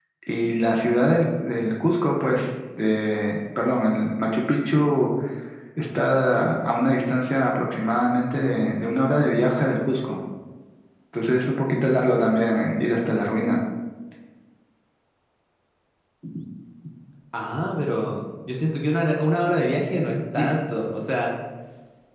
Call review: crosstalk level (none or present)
none